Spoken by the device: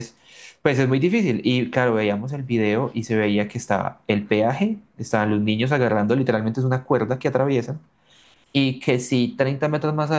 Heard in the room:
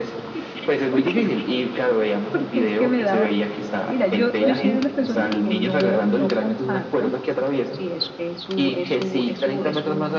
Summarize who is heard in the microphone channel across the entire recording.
both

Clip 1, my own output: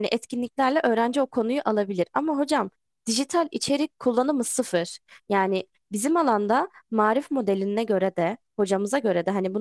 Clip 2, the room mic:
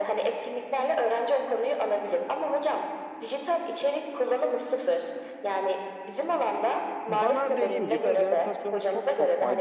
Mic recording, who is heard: both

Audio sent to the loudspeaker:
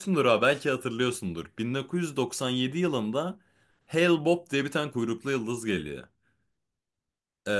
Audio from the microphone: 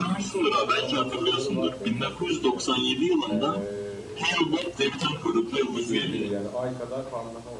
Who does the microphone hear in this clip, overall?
both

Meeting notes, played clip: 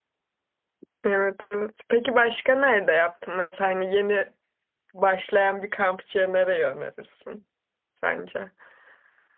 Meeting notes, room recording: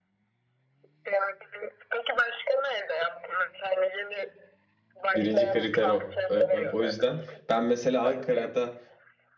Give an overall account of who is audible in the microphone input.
both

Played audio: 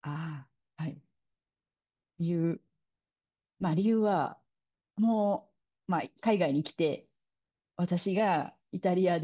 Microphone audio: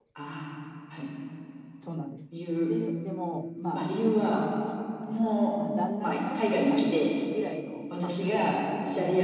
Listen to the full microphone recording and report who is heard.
both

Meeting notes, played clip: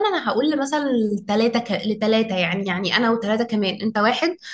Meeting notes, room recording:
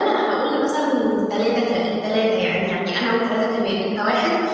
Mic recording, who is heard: echo only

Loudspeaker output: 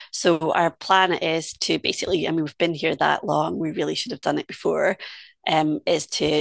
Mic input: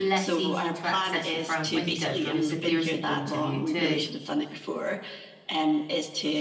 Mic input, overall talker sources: both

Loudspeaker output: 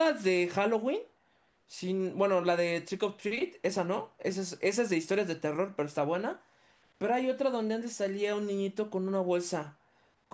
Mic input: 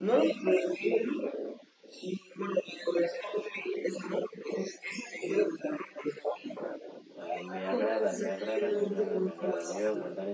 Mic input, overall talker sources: both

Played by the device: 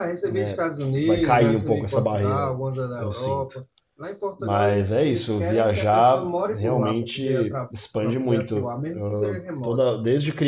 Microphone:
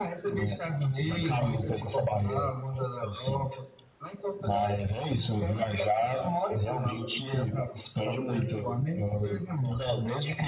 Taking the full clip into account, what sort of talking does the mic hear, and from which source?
echo only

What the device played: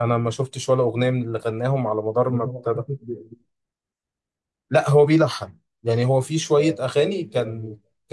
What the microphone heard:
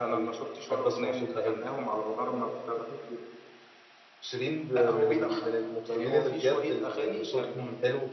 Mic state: both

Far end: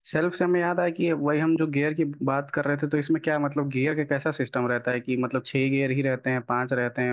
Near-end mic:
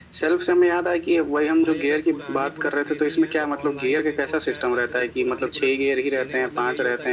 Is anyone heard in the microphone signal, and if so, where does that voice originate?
both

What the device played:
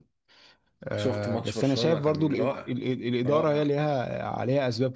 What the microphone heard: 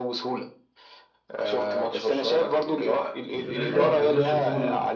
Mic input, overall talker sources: both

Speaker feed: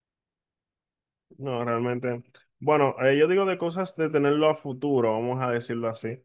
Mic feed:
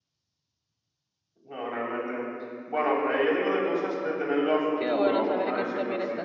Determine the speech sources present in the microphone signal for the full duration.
both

